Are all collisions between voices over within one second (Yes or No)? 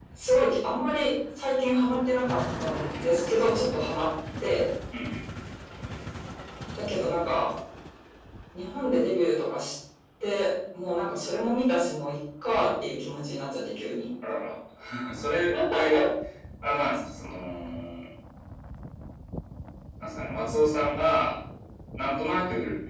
Yes